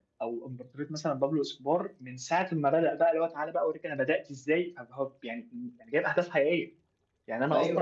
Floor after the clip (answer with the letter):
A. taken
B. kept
B